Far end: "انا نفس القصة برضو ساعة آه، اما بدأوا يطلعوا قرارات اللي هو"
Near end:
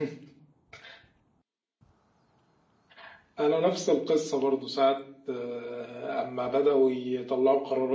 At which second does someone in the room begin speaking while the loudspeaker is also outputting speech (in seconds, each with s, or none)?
none